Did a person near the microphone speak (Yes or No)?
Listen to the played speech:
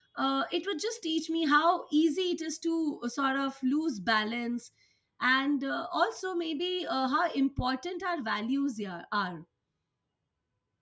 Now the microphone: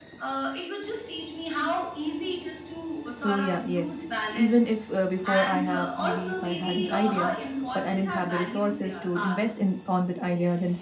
Yes